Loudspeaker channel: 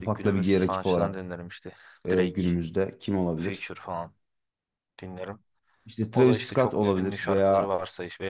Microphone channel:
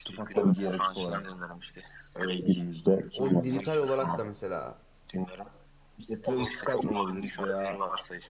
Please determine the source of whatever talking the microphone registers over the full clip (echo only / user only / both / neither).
both